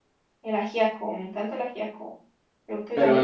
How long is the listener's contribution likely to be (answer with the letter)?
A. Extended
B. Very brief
A